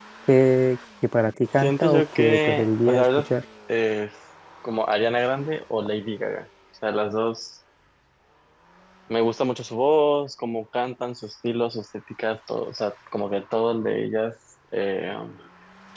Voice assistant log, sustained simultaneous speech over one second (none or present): present